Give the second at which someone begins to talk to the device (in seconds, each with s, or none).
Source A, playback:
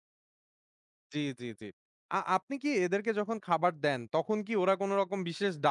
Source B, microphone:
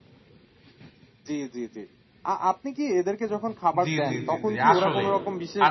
3.8 s